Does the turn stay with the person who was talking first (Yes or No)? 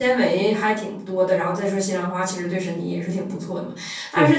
Yes